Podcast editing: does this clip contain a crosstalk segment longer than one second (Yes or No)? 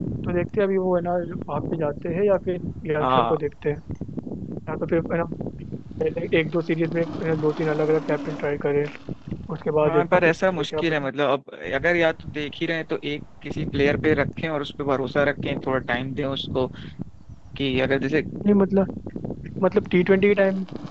Yes